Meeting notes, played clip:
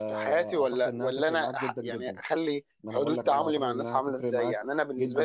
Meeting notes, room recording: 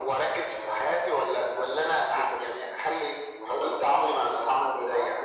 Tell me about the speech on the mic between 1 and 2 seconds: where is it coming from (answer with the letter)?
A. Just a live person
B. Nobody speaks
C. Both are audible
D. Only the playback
D